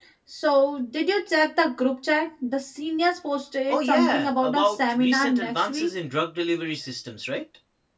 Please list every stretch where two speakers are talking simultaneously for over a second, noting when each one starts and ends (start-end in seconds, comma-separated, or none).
3.7-5.9